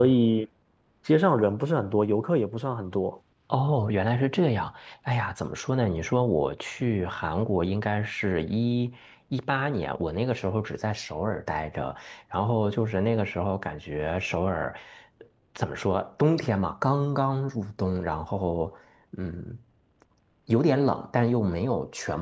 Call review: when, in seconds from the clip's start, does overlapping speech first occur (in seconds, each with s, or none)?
none